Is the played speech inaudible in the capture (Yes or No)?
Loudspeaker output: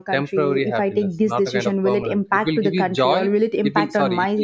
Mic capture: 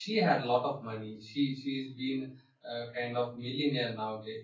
Yes